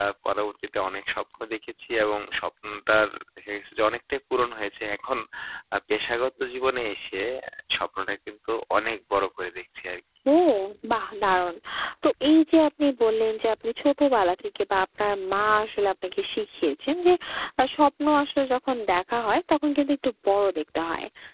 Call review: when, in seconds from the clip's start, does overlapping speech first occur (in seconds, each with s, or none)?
none